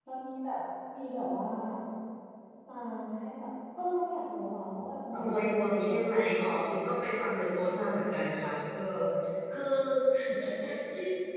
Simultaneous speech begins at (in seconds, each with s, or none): 5.1 s